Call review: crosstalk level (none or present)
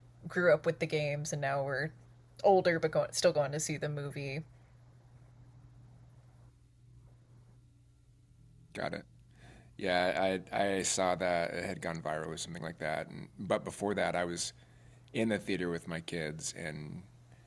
none